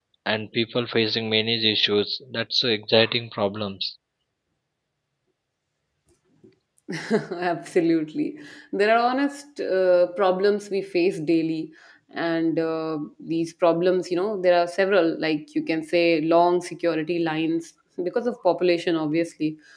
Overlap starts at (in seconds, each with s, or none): none